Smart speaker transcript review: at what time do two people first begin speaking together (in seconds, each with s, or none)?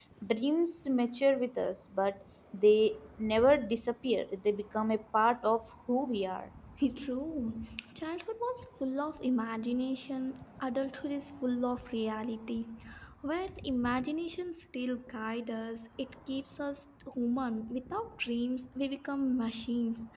none